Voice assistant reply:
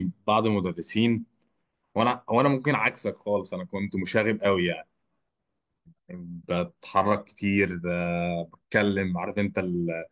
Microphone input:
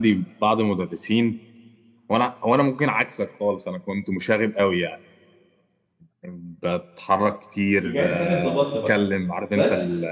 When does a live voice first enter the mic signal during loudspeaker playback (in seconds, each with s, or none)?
7.8 s